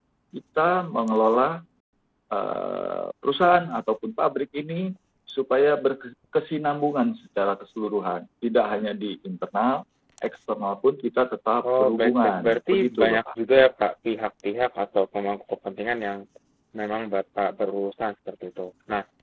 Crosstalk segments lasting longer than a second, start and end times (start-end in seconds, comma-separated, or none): 11.8-13.2